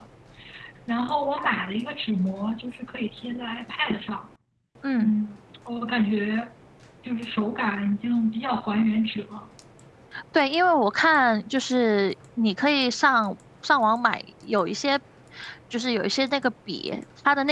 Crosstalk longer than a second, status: none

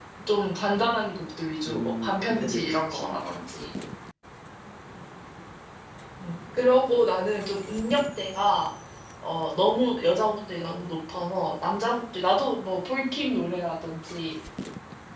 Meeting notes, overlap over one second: present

